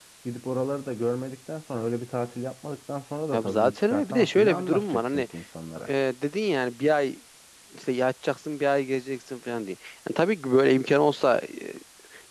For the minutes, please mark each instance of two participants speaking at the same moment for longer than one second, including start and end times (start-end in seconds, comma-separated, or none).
3.3-5.3